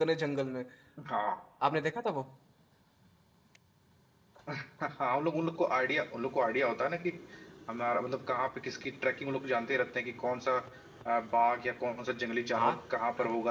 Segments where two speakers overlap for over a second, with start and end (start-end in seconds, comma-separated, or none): none